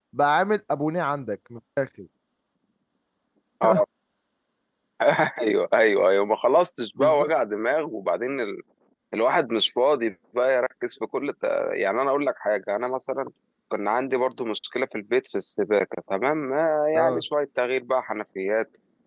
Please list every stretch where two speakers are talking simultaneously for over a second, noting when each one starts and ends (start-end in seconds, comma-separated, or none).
none